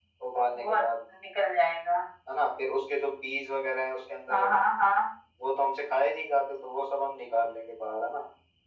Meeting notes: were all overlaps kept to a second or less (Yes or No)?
Yes